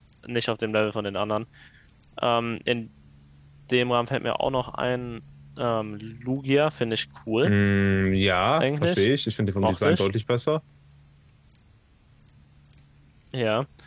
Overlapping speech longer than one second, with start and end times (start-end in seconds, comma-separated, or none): none